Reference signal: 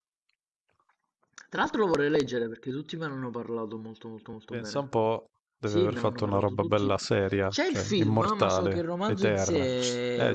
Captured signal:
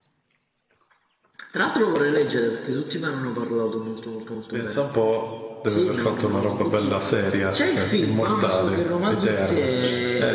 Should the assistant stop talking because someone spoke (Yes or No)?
No